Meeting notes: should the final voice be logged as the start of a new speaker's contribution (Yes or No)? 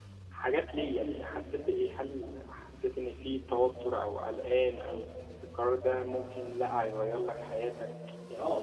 Yes